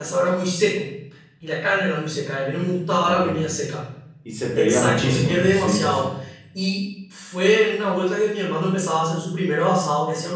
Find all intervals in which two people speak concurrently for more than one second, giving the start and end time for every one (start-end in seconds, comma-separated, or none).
4.6-6.1